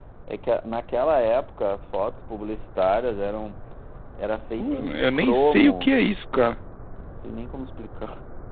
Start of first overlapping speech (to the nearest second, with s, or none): 5 s